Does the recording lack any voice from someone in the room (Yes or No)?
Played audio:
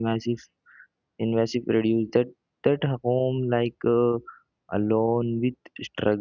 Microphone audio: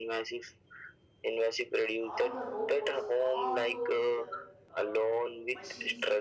No